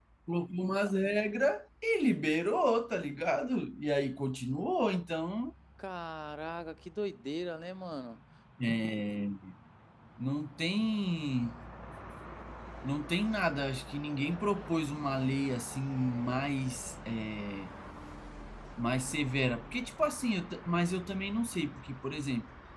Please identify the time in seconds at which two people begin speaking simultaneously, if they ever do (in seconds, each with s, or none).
none